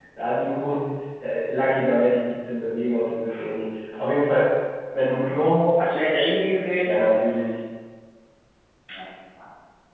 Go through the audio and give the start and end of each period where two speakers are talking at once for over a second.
none

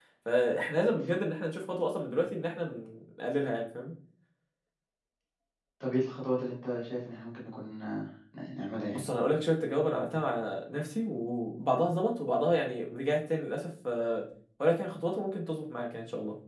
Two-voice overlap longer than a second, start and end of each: none

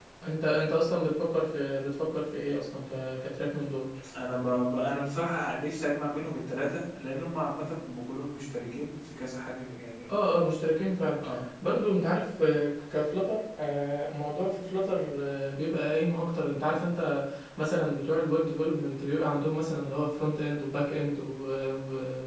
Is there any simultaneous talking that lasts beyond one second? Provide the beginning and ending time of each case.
none

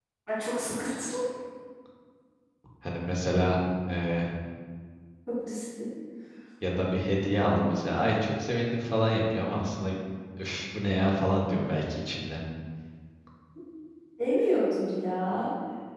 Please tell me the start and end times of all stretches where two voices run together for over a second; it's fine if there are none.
none

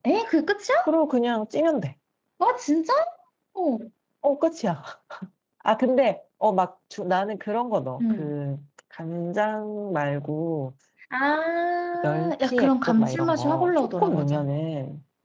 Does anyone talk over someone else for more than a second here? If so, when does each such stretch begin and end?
12.0-14.5

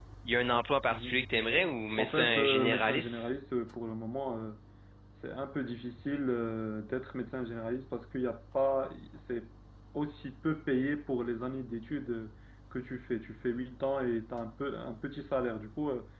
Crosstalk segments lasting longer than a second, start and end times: 1.9-3.3

